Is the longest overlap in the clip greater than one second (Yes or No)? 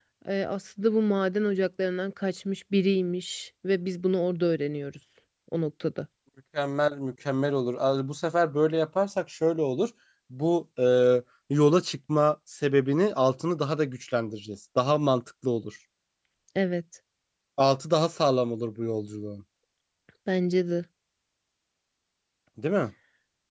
No